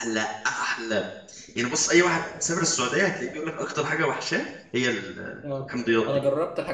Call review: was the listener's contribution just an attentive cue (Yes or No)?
No